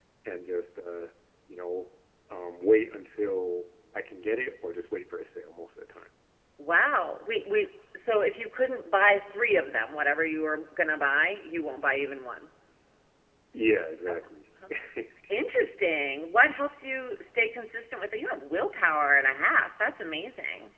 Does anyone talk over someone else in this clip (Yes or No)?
No